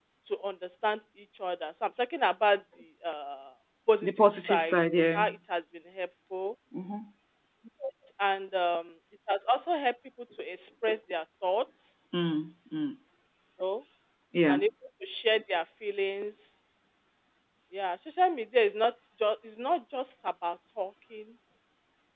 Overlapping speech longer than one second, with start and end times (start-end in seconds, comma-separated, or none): 4.0-5.2